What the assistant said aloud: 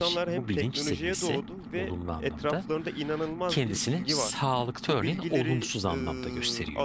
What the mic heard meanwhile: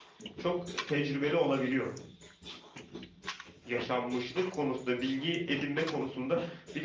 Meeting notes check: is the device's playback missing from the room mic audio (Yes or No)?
Yes